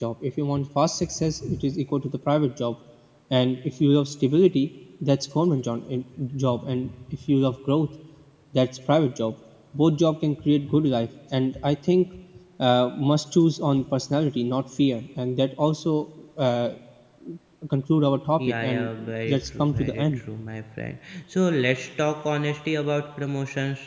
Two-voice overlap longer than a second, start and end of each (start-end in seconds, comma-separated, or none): 18.4-20.1